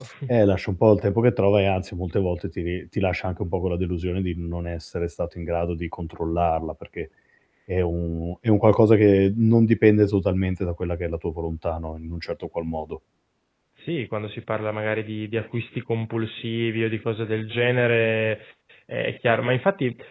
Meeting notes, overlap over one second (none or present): none